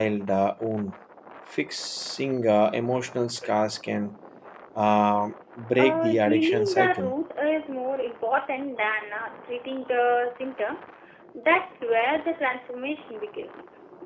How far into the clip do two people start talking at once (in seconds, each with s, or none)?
5.7 s